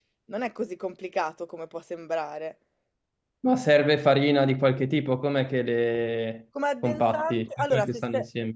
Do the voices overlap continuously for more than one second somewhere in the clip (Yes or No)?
Yes